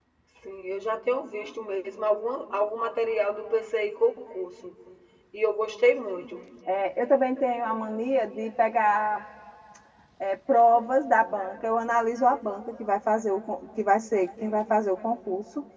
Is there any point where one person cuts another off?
No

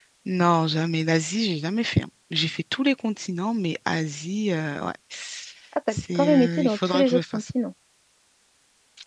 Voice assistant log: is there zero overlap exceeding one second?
No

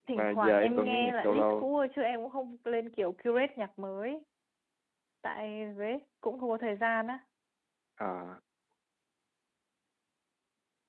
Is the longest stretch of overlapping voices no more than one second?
No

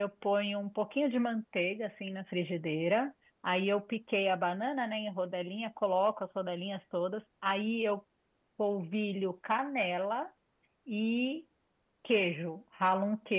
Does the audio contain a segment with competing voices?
No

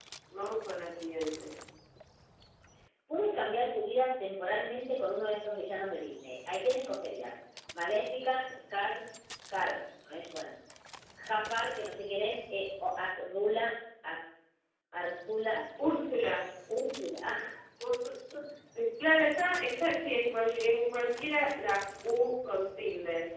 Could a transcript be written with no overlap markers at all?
Yes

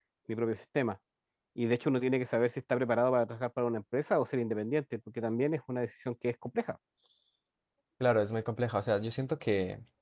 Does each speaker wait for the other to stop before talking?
Yes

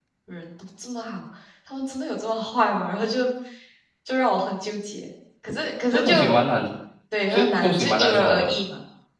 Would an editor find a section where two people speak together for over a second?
Yes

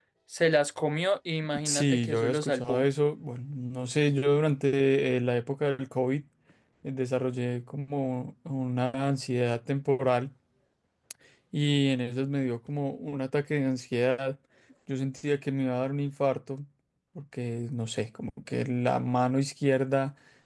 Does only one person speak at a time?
No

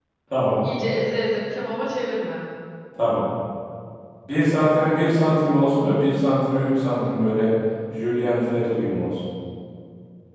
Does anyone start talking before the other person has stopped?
No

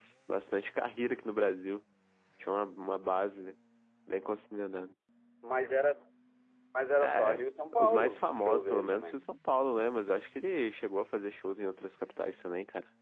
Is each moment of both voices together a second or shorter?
No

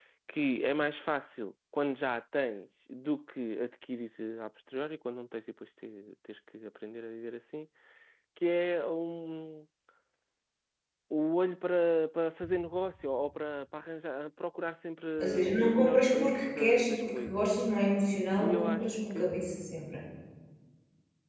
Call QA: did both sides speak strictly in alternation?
No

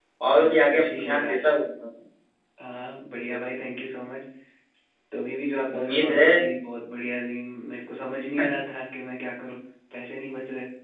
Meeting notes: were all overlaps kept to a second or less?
No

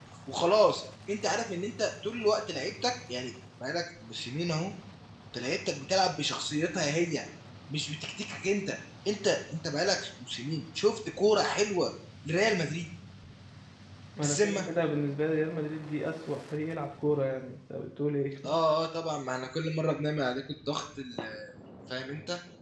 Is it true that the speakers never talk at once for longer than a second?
Yes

